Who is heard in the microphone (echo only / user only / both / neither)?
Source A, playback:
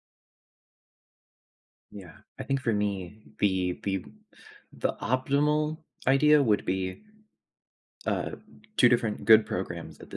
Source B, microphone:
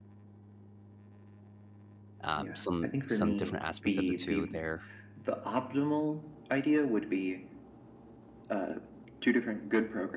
both